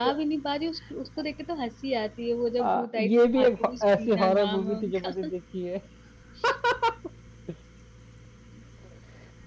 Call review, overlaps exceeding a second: present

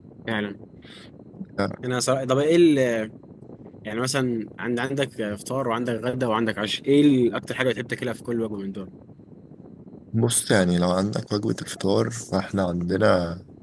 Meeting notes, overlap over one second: none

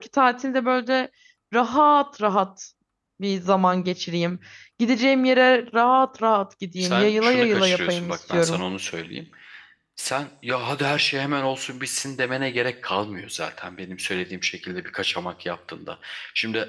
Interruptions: present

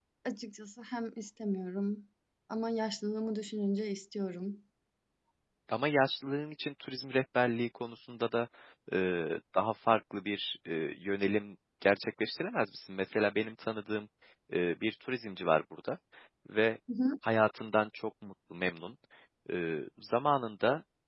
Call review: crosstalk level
none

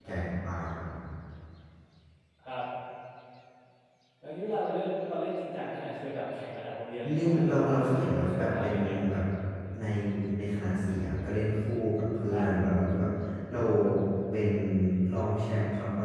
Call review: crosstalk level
present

